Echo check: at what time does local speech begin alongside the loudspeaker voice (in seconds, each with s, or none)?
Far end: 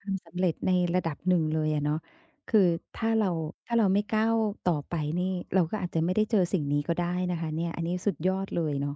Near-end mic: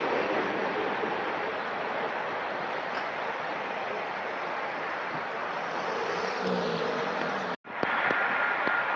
none